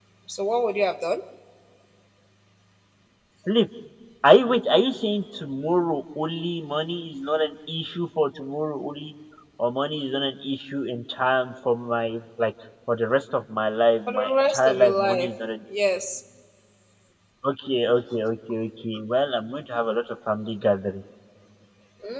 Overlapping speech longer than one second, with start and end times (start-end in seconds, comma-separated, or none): 14.1-15.4